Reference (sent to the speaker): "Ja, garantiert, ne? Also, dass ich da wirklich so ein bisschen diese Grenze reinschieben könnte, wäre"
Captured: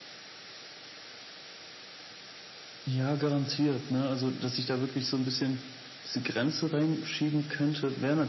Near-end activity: none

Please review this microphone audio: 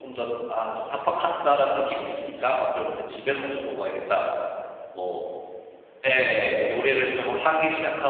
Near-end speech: present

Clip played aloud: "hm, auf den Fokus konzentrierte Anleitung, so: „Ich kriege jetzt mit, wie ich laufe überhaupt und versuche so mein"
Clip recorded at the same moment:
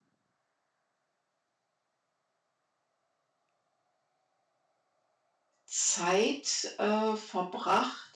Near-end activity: present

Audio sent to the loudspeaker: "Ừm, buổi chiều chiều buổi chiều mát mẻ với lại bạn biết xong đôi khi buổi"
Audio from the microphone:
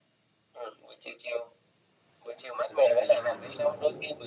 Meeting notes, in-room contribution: present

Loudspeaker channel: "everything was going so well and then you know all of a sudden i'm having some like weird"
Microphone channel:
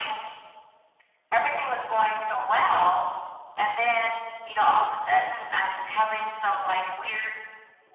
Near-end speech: none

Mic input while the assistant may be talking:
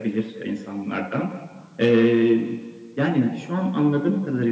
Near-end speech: none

